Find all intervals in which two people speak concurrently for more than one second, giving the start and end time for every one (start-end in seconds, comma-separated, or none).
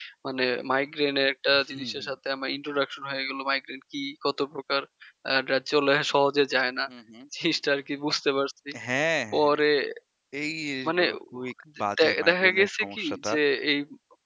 12.0-13.3